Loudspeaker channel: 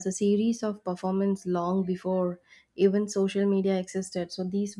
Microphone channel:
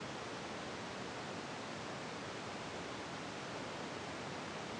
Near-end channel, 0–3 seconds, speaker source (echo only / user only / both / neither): neither